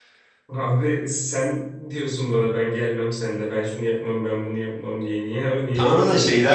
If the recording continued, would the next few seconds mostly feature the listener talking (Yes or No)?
Yes